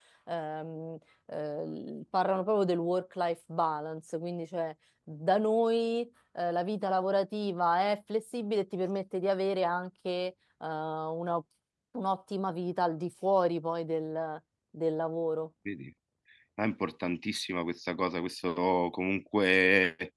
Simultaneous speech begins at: none

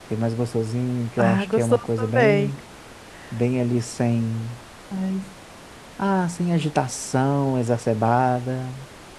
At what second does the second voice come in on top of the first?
1.2 s

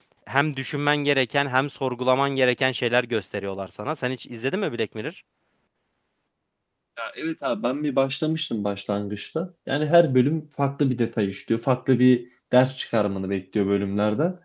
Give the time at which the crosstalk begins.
none

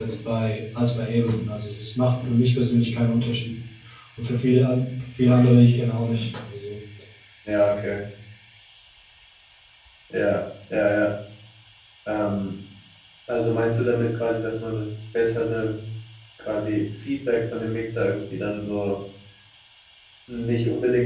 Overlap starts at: none

